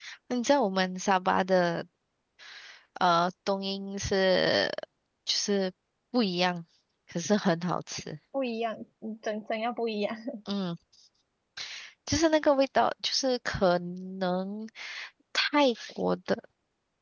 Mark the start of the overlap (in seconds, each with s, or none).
none